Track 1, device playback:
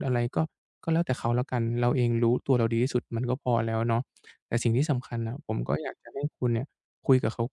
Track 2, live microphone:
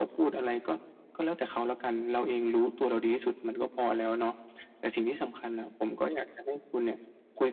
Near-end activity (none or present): none